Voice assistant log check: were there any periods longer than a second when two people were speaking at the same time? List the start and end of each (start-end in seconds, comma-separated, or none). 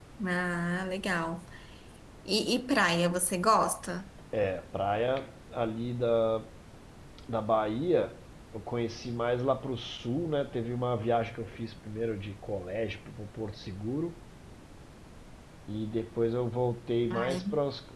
none